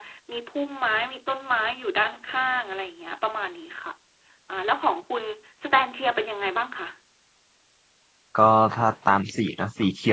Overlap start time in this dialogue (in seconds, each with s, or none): none